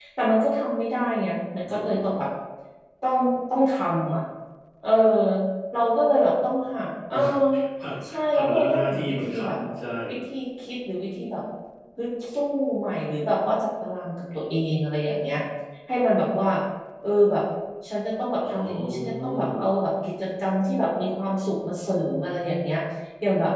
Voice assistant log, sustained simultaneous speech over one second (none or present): present